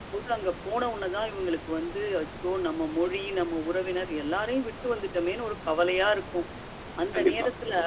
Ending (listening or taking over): listening